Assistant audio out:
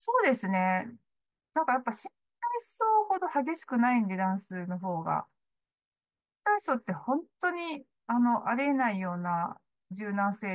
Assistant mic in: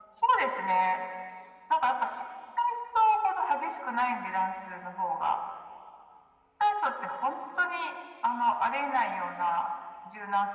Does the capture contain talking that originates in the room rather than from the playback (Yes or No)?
No